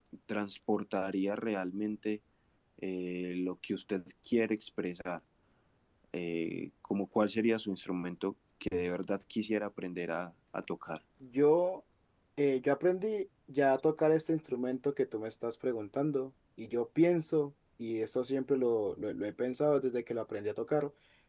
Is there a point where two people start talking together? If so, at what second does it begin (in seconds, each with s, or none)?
none